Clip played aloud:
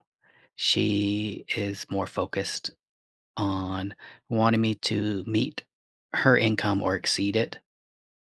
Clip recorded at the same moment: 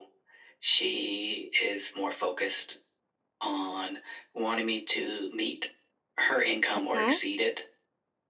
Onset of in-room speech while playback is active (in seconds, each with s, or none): 6.8 s